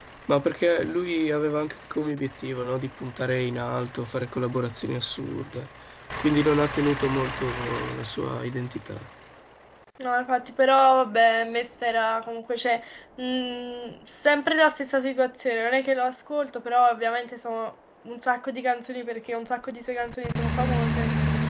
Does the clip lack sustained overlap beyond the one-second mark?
Yes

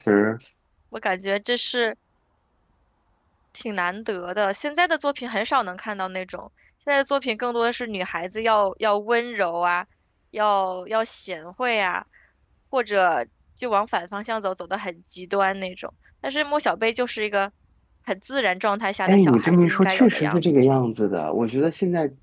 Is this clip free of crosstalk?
No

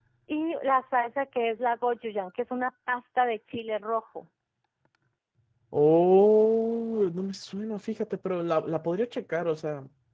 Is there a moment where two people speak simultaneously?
No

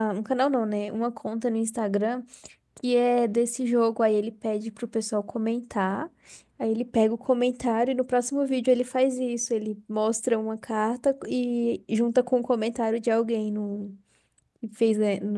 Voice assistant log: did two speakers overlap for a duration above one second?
No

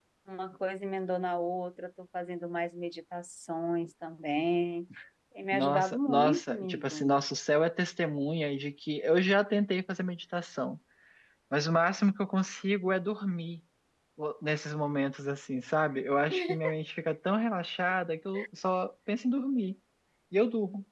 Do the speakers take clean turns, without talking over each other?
No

